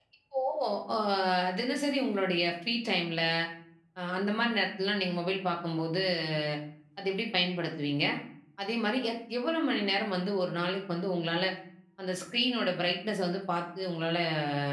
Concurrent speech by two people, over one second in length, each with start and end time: none

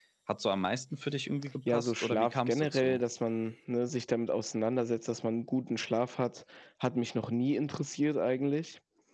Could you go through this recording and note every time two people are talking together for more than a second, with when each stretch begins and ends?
1.7-3.0

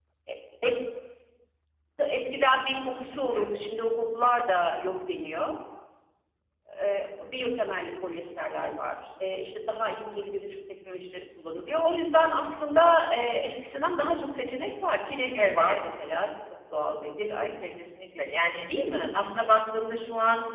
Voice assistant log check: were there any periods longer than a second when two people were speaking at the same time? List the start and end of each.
none

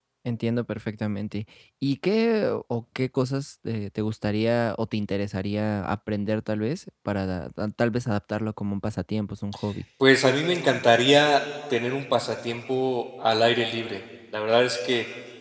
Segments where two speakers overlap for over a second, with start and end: none

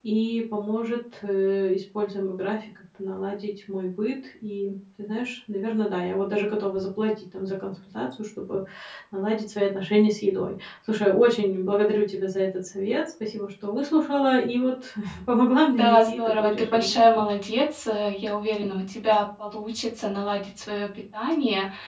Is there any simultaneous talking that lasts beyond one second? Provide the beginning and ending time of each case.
15.7-17.0

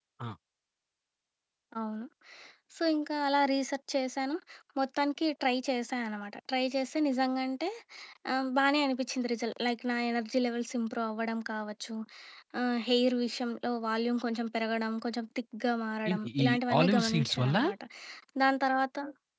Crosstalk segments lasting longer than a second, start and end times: 16.1-17.6

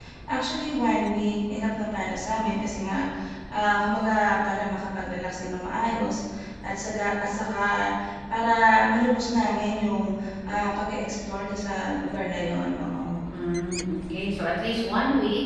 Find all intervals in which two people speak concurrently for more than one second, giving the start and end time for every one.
none

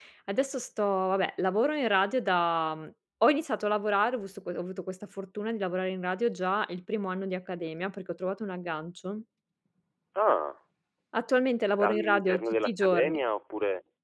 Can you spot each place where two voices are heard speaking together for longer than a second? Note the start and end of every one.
11.8-13.2

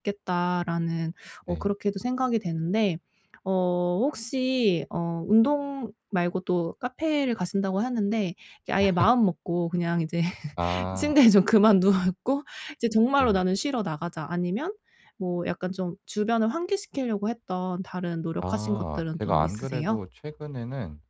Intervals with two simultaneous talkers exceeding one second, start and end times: 18.4-20.0

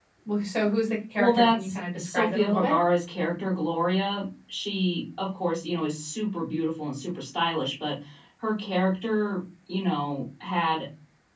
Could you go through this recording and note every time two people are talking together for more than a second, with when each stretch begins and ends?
1.2-2.8

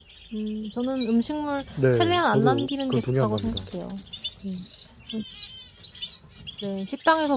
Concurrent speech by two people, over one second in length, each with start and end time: 1.8-3.7

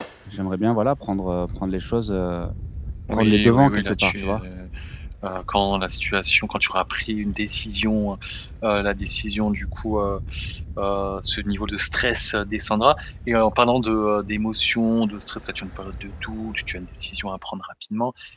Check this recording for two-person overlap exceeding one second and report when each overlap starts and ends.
3.1-4.4

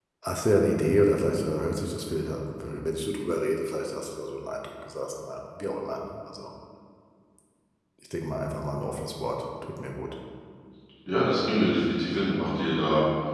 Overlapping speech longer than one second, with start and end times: none

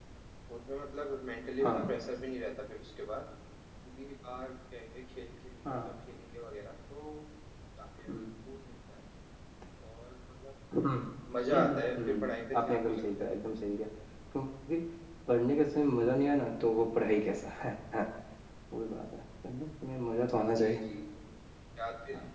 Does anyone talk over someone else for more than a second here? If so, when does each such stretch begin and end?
11.5-13.0

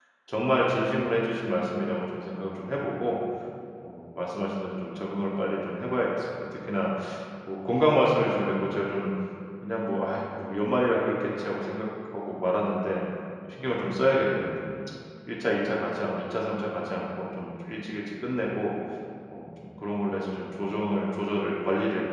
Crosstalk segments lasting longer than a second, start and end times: none

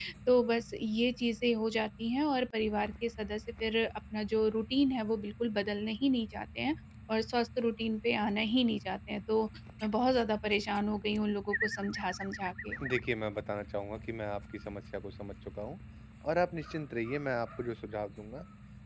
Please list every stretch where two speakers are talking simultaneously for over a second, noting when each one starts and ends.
none

